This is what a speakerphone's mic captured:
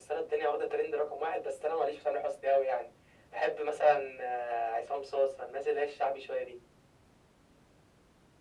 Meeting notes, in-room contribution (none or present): none